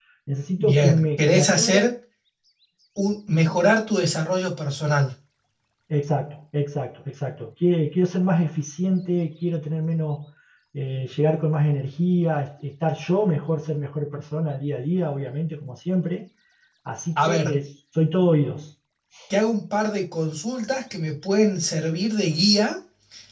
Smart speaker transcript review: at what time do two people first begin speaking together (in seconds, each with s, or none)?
0.6 s